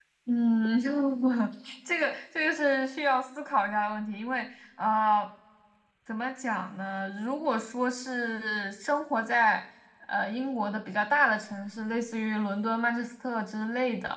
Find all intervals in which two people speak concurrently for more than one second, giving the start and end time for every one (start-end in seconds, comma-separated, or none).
none